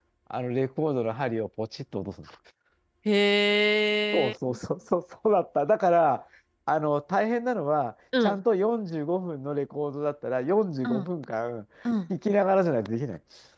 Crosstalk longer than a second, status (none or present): none